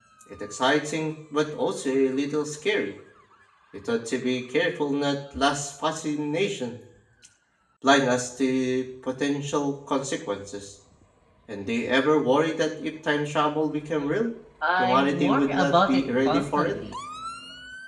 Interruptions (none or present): present